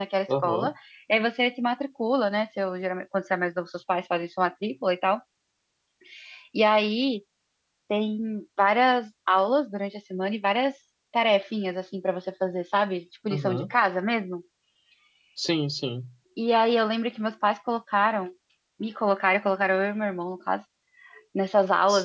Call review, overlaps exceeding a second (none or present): none